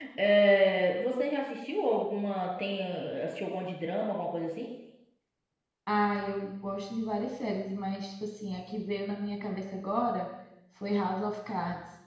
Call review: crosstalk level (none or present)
none